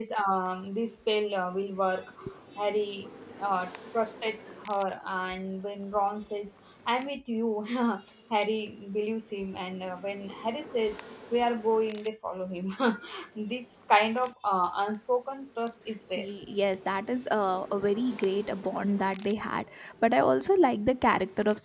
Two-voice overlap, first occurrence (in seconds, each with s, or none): none